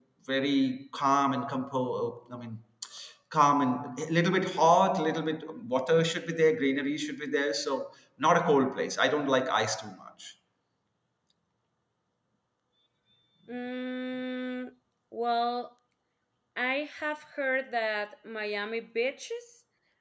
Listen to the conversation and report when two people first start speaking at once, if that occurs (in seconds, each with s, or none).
none